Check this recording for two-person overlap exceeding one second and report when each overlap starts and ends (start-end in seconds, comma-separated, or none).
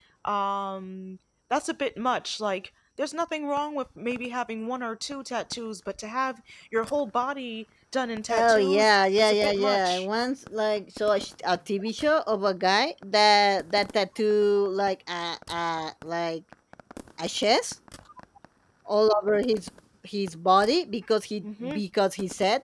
8.3-10.1